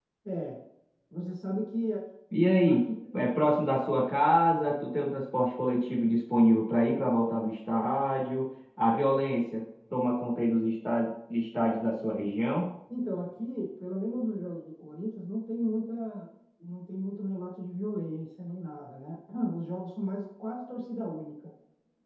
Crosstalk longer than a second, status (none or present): none